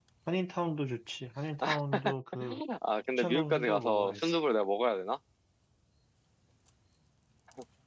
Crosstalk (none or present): present